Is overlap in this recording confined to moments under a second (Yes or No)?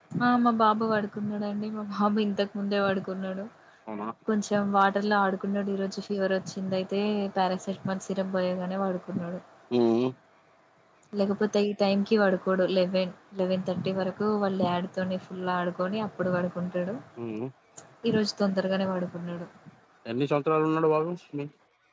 Yes